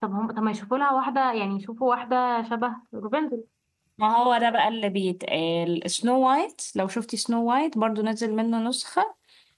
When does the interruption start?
none

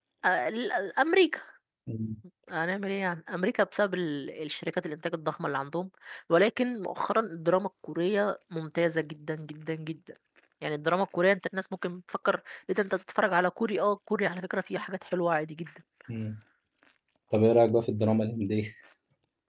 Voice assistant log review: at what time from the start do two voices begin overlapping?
none

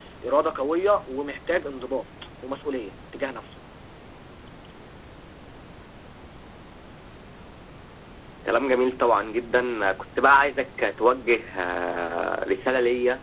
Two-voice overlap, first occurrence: none

